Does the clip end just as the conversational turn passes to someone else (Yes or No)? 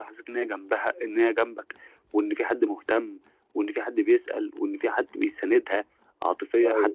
No